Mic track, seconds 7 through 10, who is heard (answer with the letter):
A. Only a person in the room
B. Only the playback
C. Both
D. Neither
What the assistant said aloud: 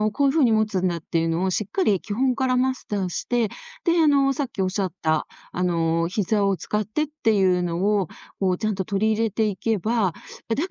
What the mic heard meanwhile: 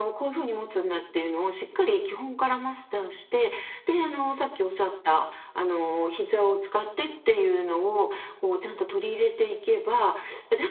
B